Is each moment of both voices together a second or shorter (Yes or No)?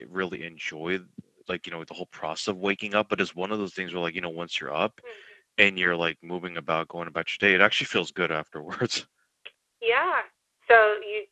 Yes